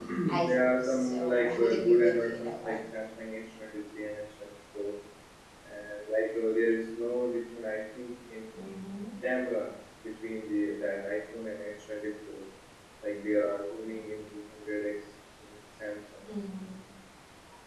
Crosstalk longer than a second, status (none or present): present